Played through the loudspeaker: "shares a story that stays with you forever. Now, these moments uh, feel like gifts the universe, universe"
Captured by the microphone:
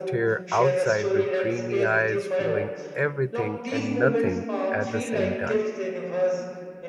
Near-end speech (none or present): present